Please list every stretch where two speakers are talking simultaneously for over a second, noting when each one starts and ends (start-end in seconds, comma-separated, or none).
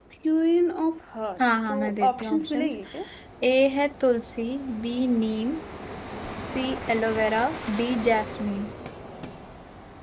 1.4-2.7